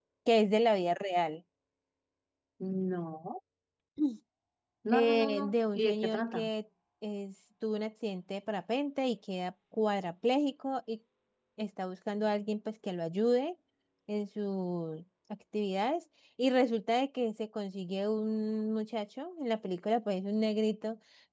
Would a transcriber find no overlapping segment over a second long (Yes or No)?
No